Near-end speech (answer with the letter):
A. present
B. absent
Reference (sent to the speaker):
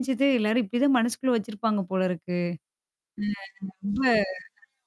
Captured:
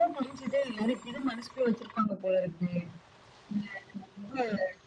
B